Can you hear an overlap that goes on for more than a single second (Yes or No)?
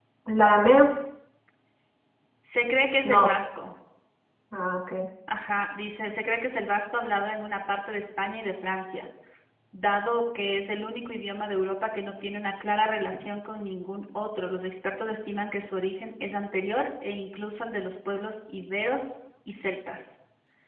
No